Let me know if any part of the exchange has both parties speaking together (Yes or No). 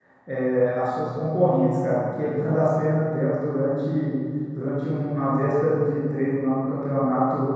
No